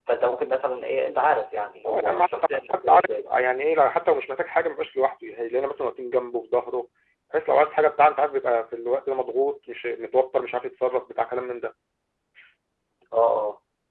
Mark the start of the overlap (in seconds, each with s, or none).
1.8 s